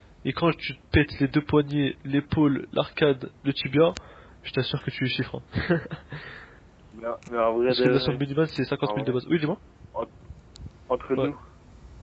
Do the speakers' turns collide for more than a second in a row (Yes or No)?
No